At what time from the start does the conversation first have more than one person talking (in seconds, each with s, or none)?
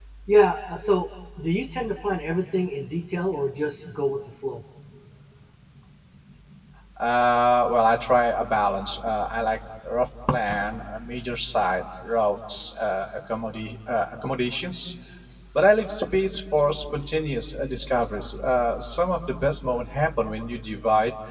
none